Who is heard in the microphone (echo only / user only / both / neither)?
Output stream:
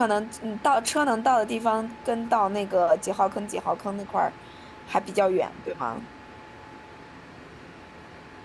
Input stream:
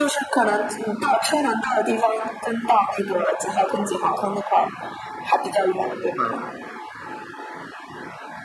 echo only